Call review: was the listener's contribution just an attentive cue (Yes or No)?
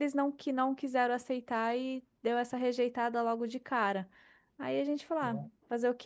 Yes